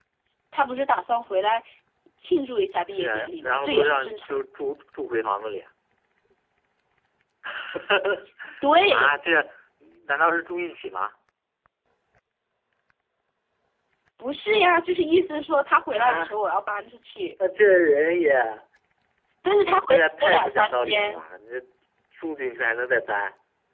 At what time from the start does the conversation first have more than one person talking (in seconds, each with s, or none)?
2.9 s